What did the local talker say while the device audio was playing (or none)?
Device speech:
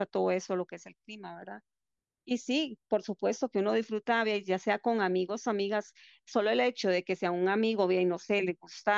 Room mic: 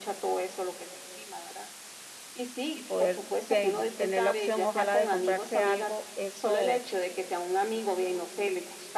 y poder pe- tener la opción, ojalá, de comprarse algo, eso